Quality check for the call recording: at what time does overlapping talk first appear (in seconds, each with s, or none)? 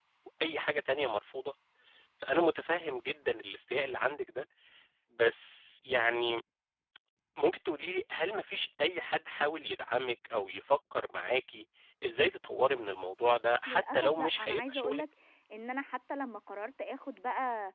13.7 s